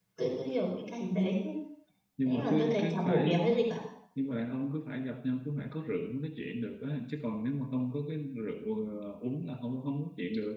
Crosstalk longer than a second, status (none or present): present